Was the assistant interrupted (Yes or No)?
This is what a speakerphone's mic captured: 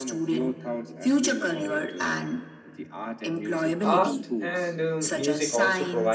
Yes